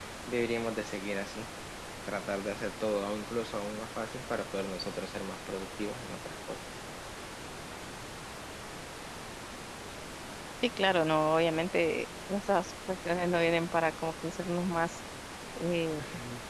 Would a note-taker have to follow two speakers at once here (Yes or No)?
No